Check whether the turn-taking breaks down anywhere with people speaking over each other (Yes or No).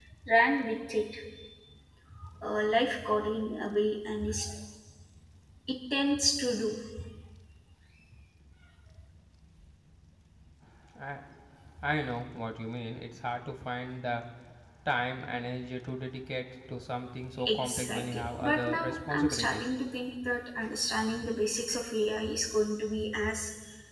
Yes